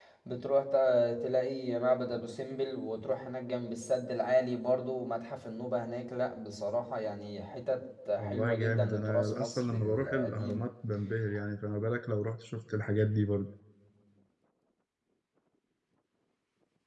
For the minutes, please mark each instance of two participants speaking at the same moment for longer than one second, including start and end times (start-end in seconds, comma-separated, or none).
8.2-10.6